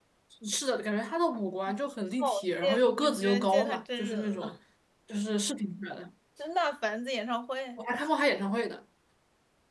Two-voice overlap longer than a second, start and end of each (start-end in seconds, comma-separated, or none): 2.2-4.5